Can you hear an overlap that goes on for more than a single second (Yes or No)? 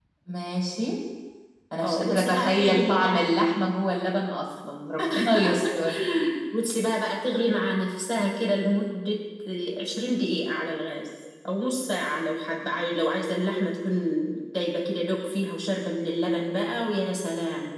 Yes